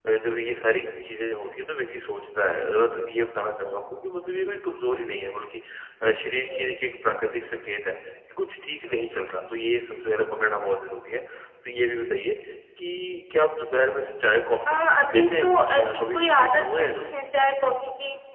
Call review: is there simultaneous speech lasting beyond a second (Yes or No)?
Yes